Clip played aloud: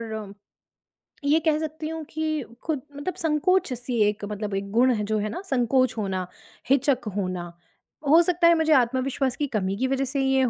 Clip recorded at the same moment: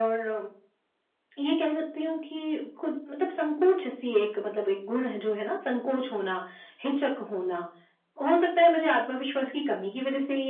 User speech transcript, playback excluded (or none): none